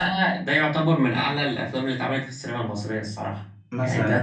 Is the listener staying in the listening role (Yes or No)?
No